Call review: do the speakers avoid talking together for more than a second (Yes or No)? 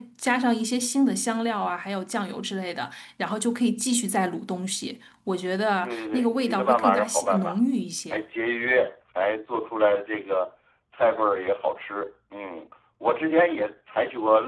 No